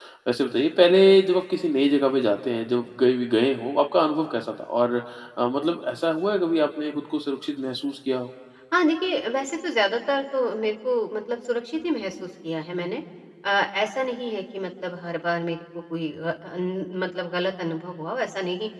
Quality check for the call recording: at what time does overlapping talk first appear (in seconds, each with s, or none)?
none